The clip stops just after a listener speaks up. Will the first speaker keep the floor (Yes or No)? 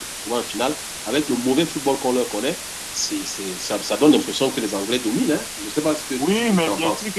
No